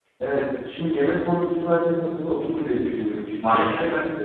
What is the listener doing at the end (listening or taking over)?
listening